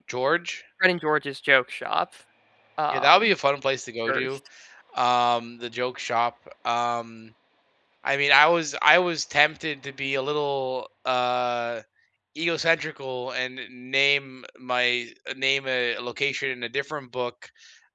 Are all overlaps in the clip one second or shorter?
Yes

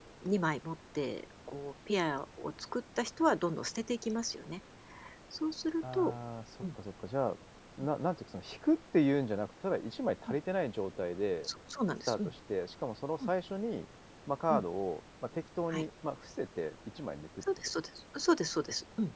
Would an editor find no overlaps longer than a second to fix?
Yes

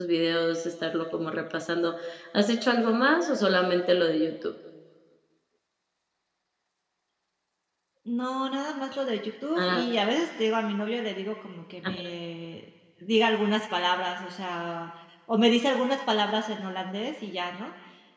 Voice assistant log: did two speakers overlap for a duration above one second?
No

